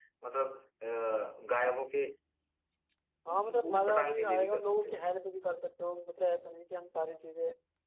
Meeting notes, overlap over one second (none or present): present